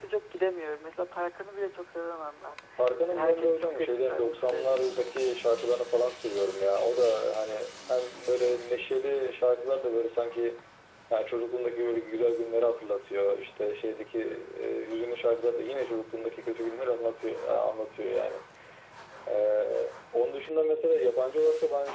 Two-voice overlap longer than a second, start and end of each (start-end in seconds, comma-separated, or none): 3.1-5.0